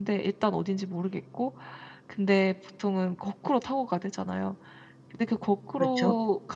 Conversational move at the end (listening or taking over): listening